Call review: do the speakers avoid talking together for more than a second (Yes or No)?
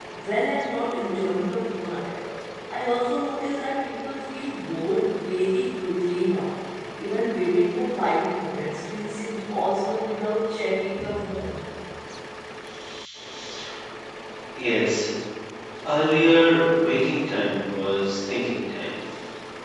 Yes